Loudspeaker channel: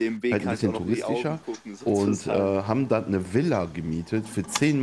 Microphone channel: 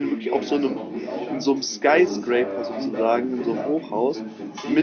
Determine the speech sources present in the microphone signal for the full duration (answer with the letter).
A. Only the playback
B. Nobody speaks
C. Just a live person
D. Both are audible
D